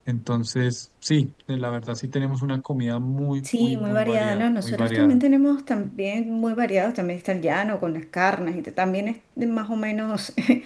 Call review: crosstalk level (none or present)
present